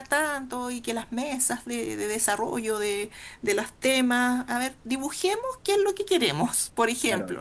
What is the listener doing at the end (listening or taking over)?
taking over